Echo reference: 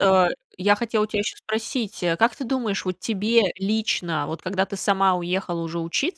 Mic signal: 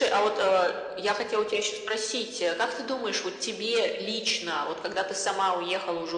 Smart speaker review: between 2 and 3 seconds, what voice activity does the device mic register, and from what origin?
echo only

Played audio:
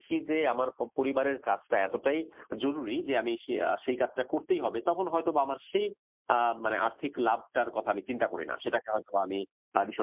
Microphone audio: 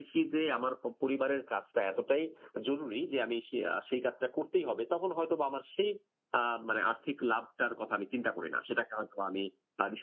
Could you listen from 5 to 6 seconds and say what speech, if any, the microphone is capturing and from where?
echo only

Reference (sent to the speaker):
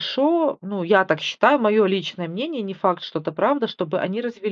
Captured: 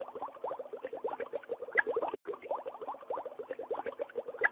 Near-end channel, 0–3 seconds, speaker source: neither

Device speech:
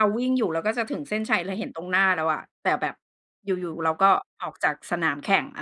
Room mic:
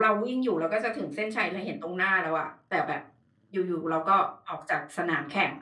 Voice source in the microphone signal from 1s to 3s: echo only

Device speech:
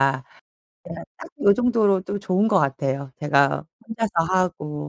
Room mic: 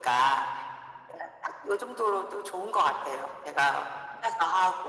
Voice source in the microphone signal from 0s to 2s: echo only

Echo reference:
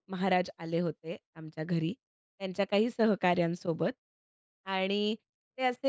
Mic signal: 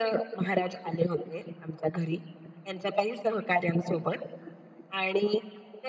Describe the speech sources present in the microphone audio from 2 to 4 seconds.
echo only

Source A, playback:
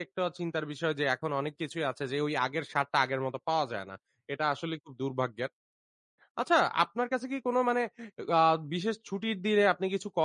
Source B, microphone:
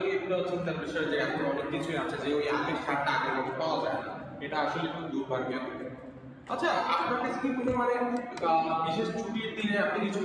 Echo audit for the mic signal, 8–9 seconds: echo only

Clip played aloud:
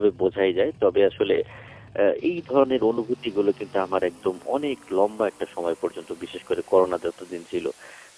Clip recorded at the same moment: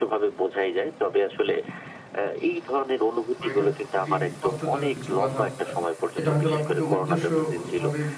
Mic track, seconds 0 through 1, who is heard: echo only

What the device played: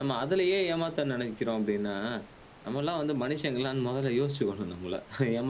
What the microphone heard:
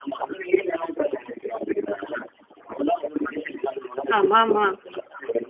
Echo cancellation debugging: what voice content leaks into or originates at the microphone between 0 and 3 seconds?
echo only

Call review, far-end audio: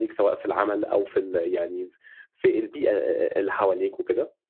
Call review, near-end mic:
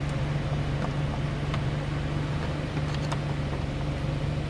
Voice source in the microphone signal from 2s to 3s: neither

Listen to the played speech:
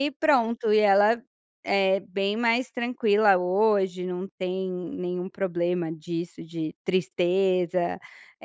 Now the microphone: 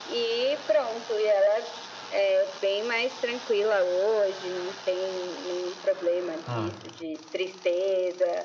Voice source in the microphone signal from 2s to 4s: echo only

